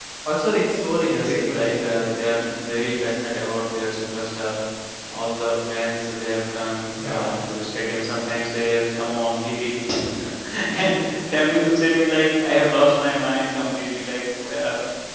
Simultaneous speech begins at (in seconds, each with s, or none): 1.0 s